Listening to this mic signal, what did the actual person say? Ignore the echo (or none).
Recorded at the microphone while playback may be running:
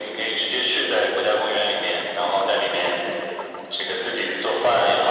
none